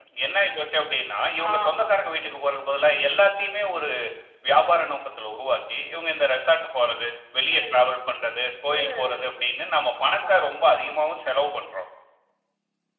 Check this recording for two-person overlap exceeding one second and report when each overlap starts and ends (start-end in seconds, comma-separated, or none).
none